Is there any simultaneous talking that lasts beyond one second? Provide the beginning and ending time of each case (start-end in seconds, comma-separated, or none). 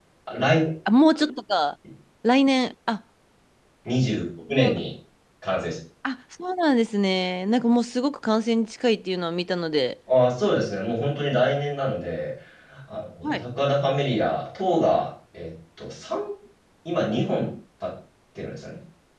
none